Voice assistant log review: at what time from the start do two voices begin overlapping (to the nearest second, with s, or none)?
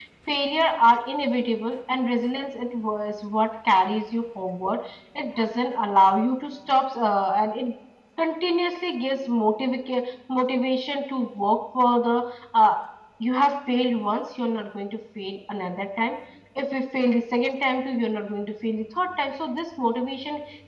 none